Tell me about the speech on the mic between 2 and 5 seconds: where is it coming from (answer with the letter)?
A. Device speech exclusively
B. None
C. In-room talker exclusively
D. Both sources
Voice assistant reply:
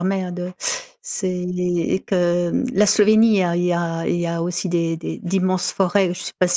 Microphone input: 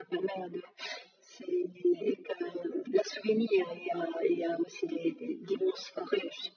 A